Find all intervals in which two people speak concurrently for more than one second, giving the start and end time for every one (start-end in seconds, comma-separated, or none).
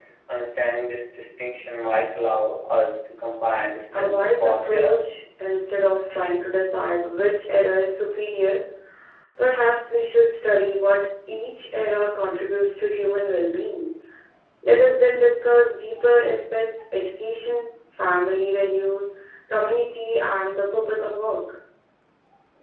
3.9-5.2